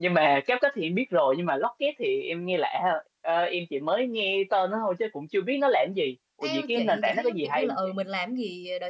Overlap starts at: 6.4 s

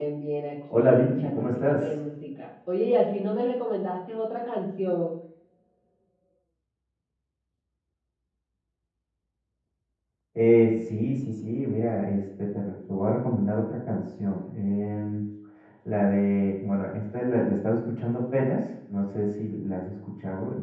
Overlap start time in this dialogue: 0.7 s

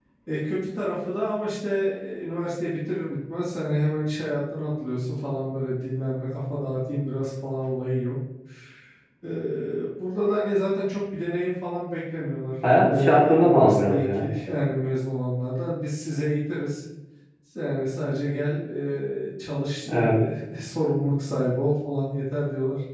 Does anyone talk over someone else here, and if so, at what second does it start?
12.8 s

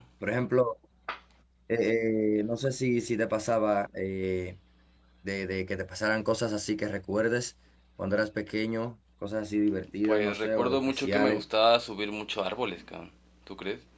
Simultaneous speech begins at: 10.0 s

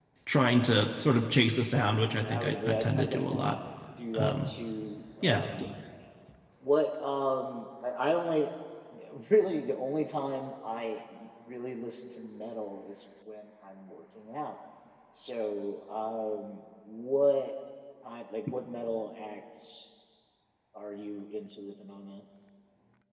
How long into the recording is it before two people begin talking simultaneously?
2.2 s

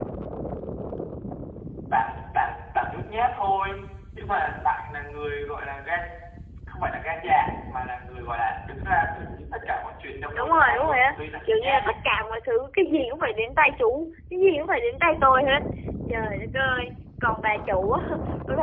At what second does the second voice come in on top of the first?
10.3 s

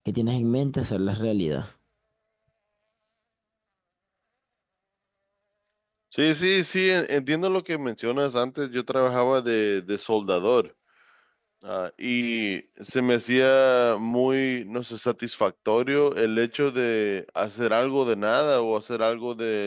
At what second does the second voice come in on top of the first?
none

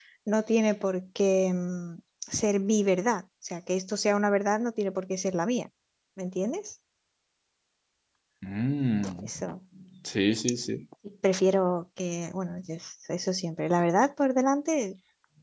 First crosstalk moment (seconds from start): none

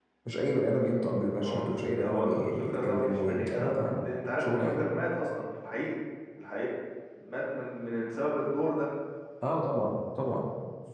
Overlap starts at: 1.4 s

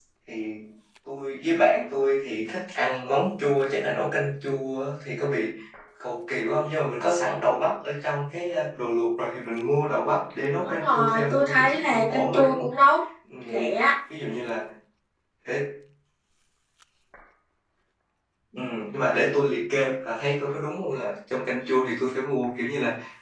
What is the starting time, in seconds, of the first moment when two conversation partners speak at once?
10.6 s

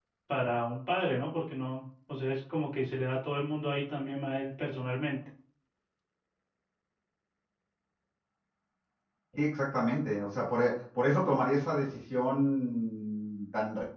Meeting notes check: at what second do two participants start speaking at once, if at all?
none

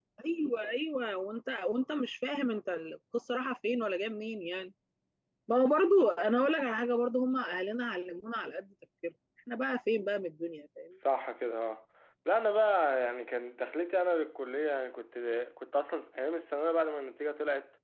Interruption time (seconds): none

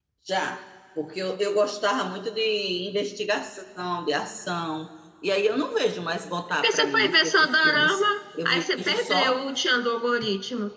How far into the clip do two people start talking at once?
6.6 s

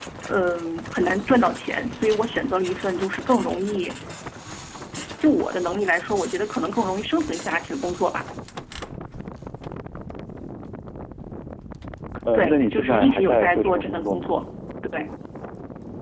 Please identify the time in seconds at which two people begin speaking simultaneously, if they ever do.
12.3 s

